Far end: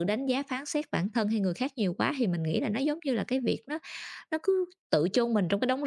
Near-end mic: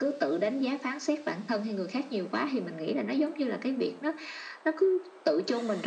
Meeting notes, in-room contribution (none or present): none